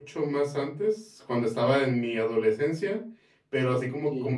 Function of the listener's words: listening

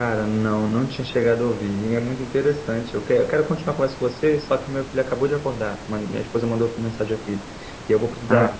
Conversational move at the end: listening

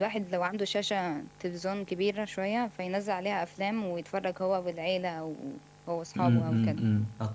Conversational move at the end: taking over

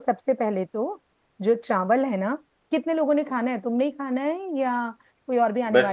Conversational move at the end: taking over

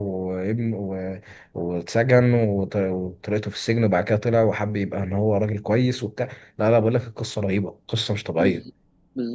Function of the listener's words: taking over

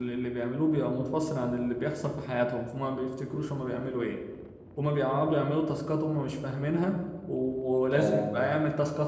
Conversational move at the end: listening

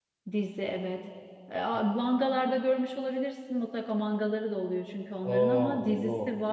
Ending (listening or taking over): listening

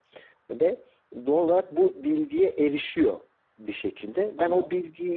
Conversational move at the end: listening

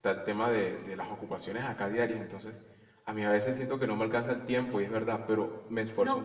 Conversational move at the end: taking over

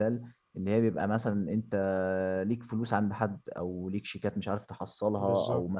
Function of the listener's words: listening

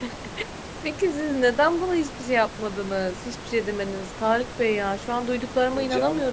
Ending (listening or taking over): listening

